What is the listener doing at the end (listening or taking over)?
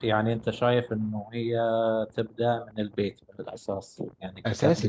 taking over